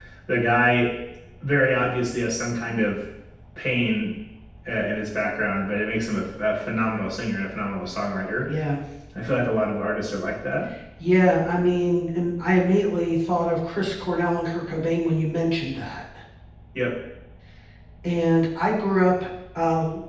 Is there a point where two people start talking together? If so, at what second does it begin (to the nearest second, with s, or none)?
none